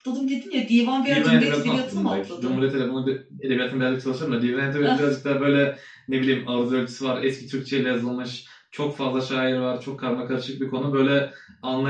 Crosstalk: present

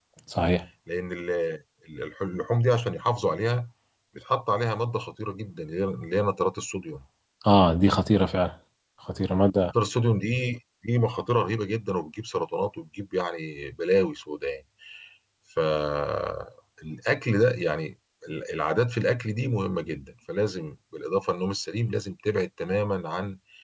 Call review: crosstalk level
none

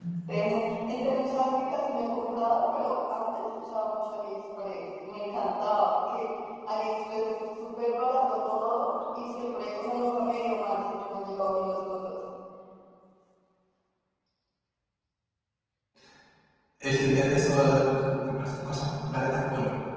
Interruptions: none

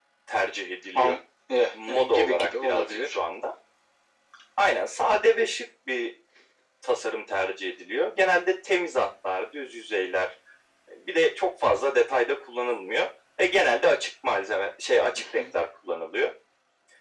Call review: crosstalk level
present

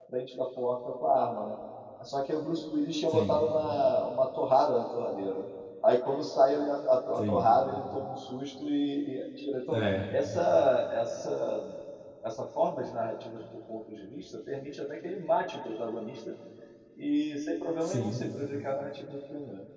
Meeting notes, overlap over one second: none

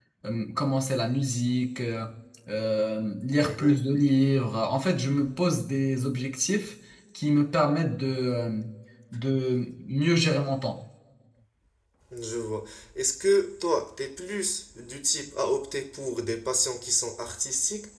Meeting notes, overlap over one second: none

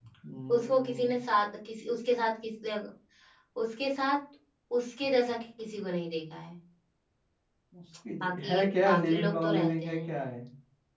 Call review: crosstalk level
present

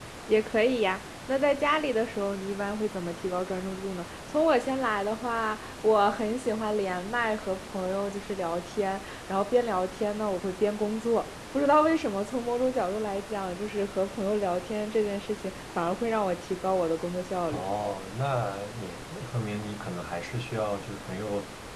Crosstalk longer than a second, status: none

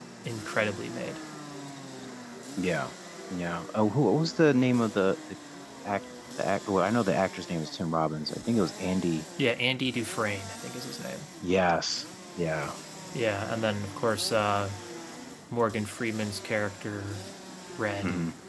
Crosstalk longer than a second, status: none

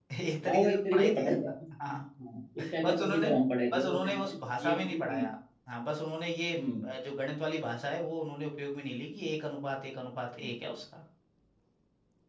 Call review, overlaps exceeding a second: present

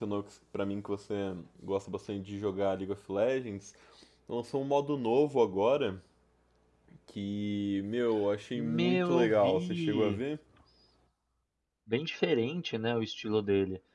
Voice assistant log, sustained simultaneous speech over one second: present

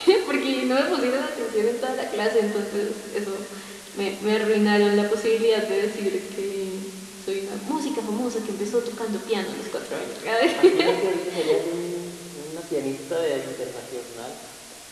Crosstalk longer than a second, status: none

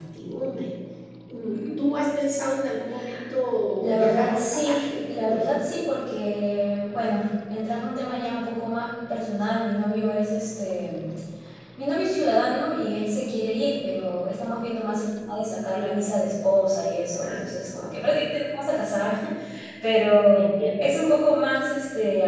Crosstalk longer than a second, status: present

